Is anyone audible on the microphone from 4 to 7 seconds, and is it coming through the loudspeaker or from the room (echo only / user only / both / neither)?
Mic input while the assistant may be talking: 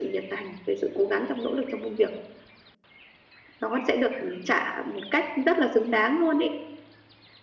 echo only